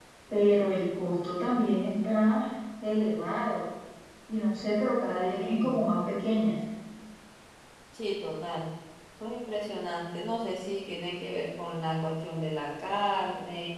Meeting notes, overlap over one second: none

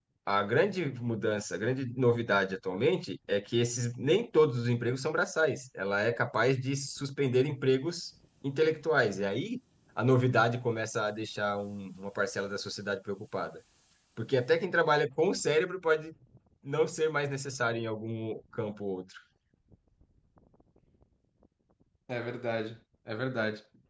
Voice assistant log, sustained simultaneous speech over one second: none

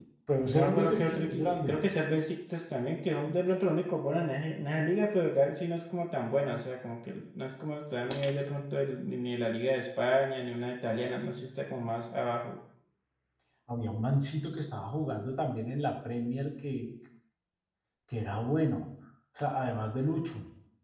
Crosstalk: present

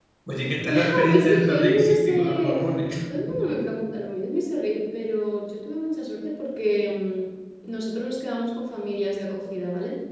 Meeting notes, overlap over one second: present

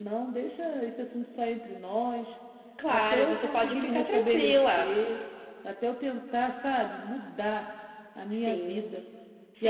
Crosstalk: present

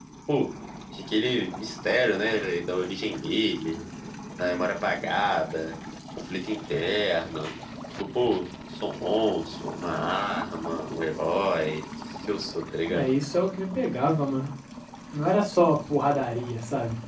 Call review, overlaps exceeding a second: none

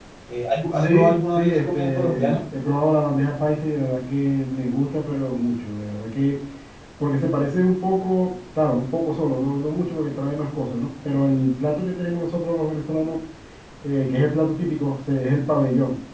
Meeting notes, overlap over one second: present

